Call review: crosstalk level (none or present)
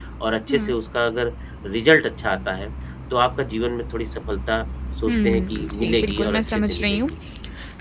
present